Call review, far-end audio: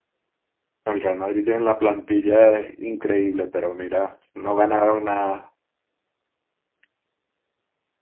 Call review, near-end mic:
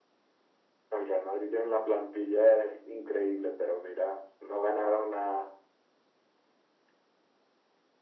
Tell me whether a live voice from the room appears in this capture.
No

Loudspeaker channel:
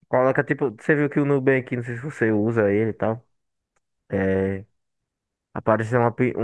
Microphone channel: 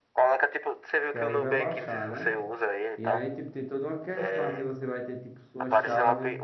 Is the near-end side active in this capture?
Yes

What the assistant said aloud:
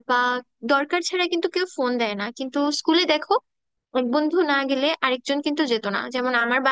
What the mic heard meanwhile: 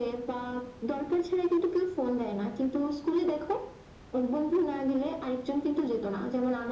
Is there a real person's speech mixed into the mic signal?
No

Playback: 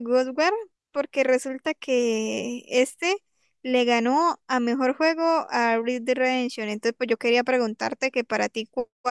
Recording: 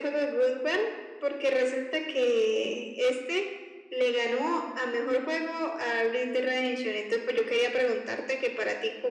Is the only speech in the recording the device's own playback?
Yes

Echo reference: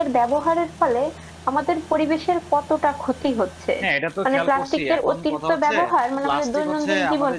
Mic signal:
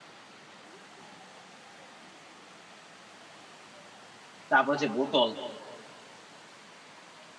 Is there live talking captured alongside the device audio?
Yes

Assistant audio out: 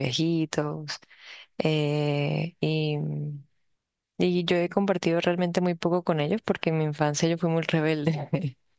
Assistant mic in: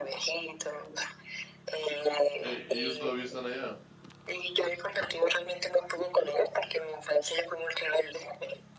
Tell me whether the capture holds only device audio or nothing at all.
No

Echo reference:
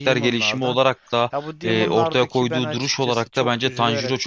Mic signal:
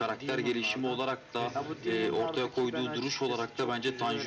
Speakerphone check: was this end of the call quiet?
No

